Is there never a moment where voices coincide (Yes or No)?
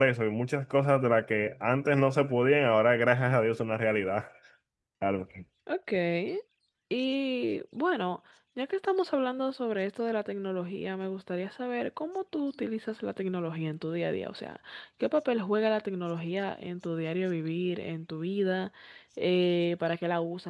Yes